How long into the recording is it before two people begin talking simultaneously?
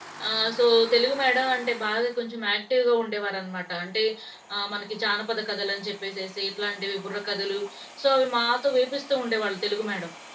none

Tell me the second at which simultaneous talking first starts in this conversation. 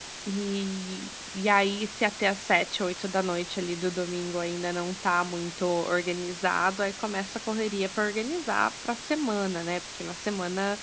none

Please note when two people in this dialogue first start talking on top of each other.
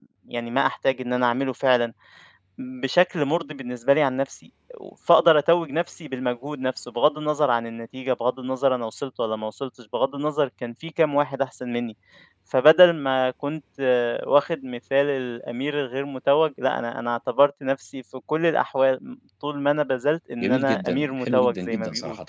20 s

